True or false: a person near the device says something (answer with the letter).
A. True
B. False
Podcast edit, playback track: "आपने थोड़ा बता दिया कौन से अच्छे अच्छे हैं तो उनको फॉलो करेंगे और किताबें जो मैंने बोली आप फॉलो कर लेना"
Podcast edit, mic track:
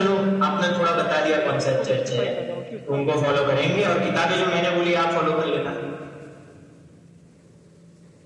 A